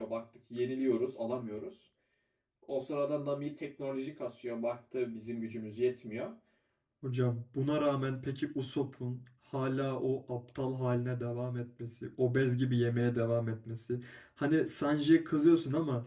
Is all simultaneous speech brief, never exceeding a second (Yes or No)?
Yes